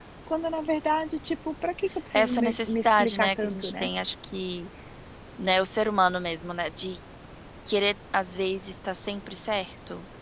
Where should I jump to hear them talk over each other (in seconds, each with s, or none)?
2.1 s